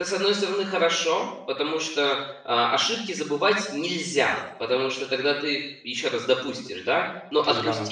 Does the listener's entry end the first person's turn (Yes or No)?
No